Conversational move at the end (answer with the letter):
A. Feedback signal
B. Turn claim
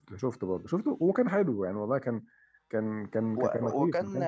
B